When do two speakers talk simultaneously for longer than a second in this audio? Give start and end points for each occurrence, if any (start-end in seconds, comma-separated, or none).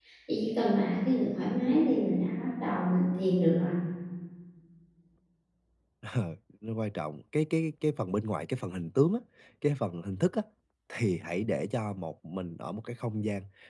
none